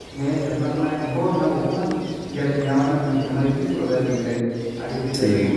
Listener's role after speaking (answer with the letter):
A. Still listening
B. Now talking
A